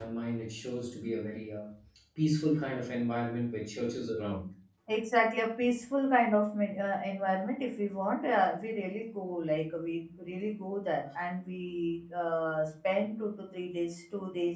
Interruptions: none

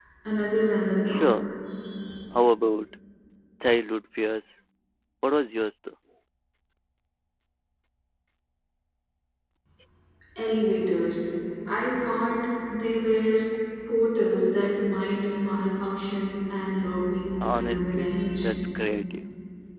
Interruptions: present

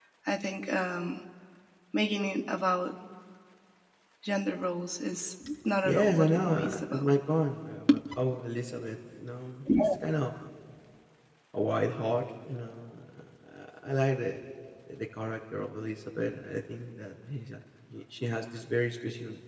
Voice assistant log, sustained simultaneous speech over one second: present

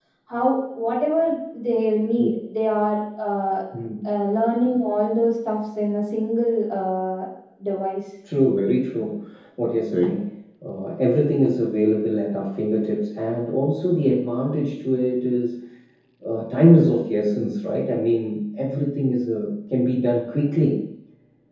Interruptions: none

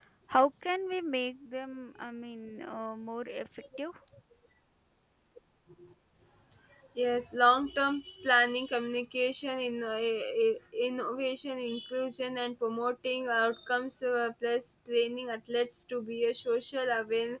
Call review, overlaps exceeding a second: none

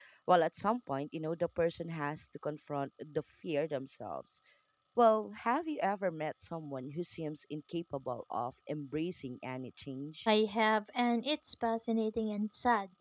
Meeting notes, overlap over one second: none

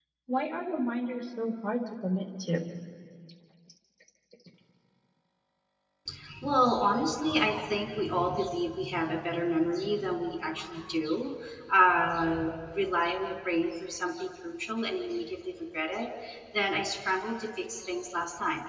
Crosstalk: none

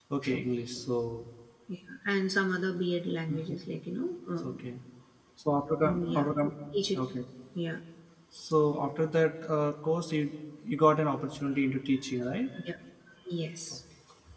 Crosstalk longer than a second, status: none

